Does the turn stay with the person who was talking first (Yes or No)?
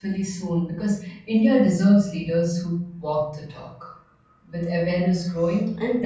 Yes